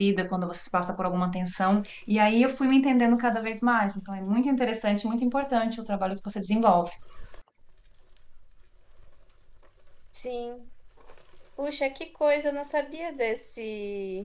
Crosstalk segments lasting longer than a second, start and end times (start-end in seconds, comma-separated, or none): none